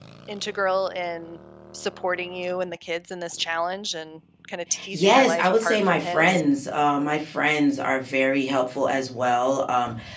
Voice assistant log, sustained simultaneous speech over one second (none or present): present